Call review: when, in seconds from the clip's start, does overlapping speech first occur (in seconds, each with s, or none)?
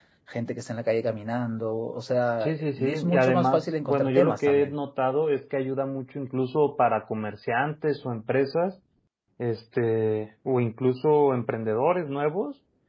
2.4 s